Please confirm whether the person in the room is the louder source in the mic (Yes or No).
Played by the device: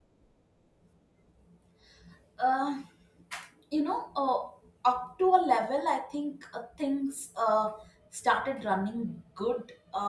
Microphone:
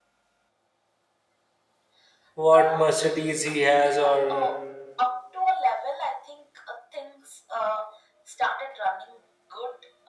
Yes